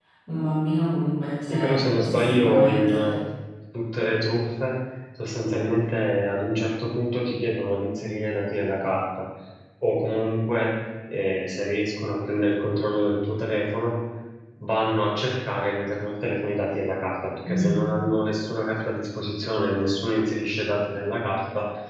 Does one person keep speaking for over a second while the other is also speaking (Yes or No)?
Yes